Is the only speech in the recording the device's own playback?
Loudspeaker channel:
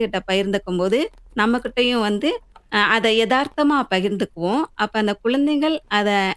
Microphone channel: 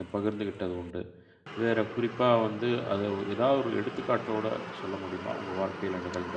No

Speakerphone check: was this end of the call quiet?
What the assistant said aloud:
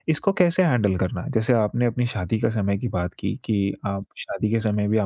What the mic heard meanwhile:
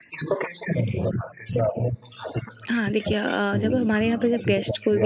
No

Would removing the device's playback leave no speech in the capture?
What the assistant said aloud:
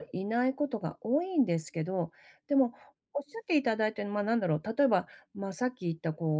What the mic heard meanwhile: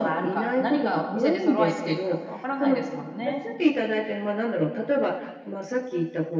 No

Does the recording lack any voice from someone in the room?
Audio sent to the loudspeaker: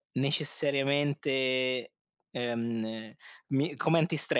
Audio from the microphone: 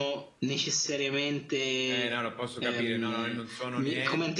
No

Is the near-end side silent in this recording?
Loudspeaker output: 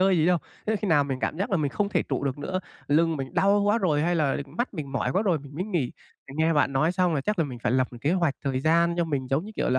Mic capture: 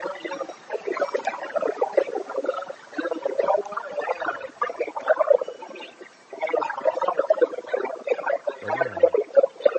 No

